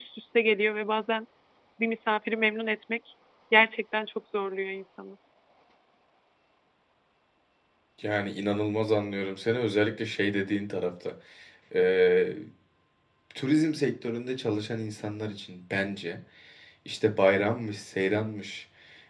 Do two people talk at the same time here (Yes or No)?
No